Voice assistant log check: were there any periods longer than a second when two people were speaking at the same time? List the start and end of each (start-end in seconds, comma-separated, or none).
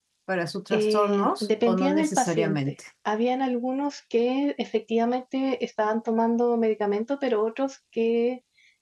0.7-2.6